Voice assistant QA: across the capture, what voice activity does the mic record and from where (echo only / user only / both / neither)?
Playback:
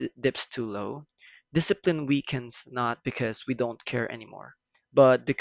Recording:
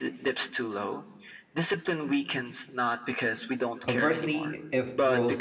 both